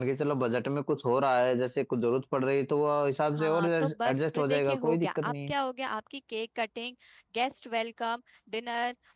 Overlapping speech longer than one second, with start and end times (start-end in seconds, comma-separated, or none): 3.4-5.5